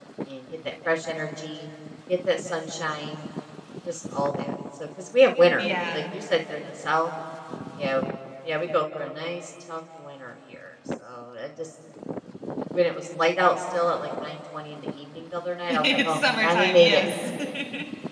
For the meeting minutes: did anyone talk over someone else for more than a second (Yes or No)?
Yes